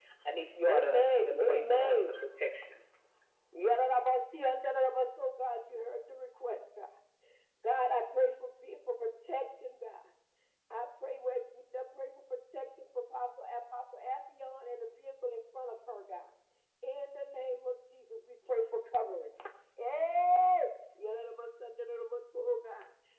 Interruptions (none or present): present